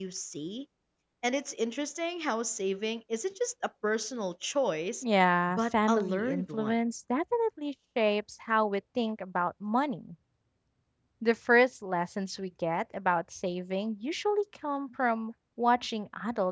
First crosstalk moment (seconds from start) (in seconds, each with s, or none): 5.5 s